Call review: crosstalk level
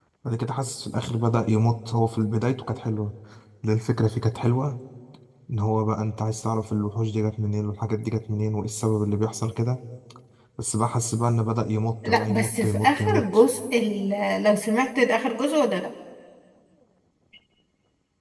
present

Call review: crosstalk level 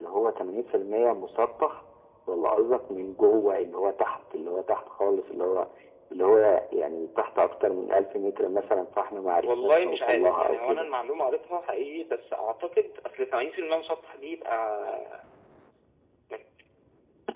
present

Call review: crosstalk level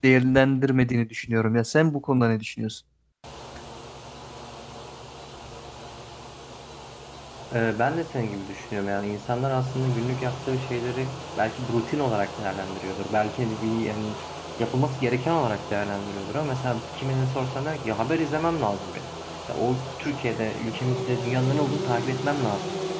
none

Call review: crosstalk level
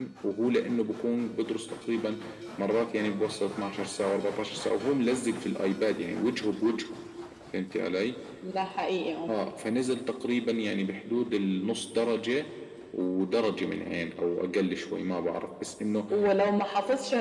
none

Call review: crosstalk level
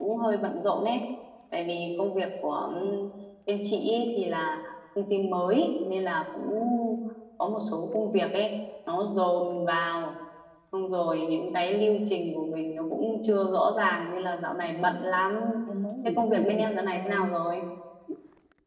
present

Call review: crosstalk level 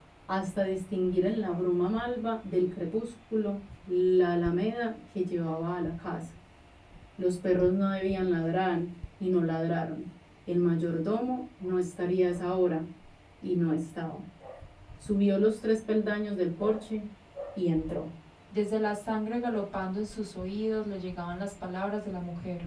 none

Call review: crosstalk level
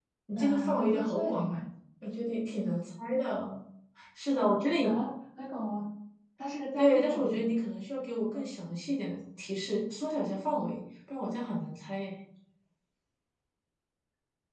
present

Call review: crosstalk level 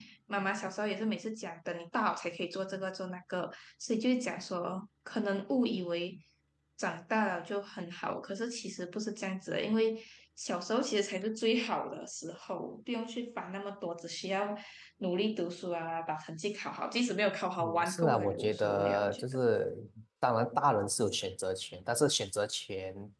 present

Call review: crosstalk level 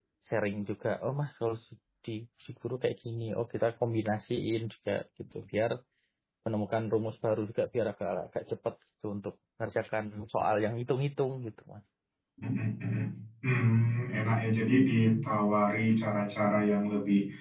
none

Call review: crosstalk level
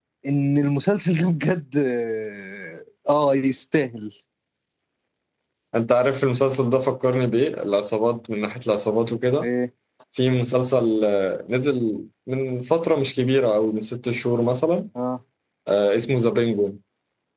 none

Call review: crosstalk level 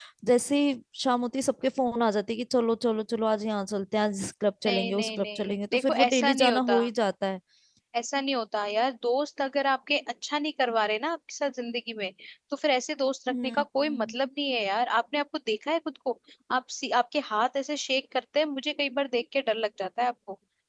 present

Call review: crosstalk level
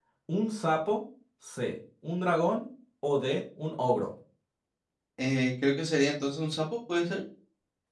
none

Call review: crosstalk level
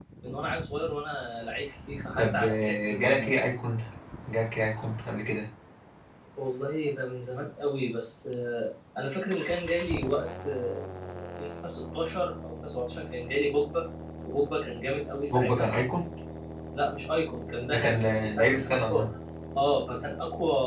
present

